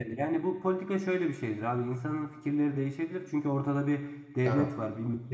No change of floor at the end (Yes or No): Yes